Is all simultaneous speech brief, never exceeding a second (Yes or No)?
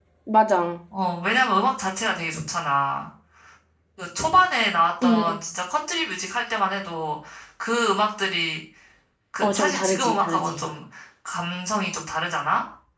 No